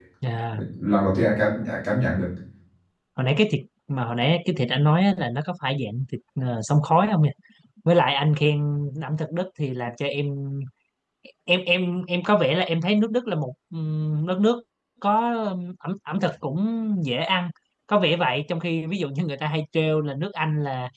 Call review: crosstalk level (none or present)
none